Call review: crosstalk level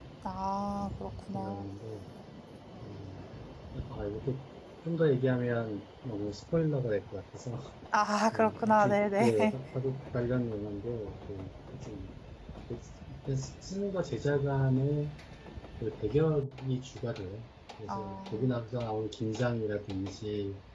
present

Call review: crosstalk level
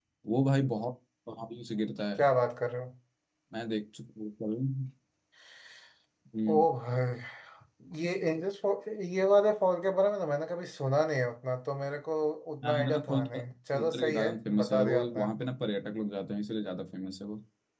present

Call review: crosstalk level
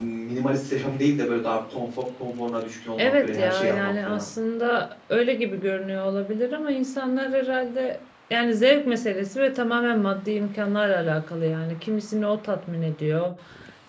present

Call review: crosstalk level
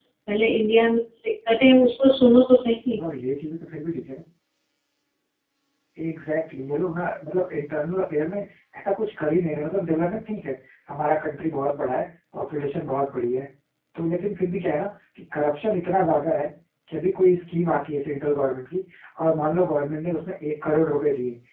none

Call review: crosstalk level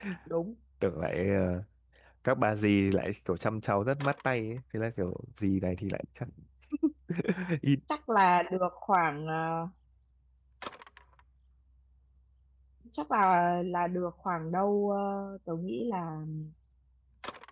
none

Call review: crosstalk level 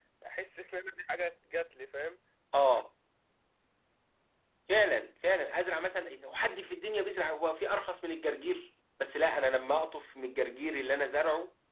none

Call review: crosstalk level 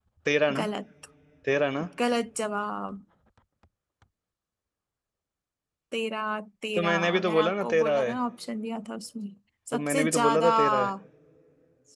present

